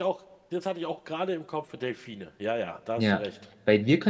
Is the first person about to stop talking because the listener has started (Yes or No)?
Yes